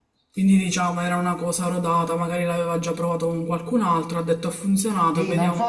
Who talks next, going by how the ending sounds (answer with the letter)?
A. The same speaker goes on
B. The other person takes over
B